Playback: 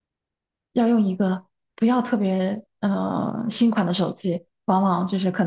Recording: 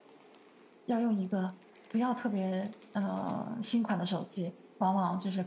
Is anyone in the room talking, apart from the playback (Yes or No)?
No